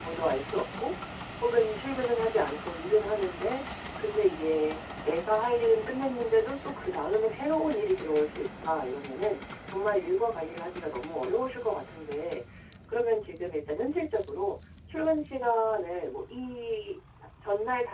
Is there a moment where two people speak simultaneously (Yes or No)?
No